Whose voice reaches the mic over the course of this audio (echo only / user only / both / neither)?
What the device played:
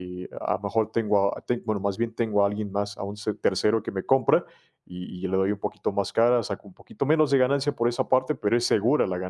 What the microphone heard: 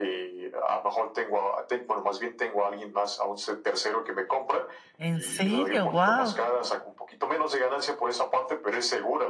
both